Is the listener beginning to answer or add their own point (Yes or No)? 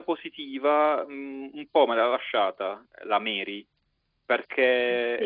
No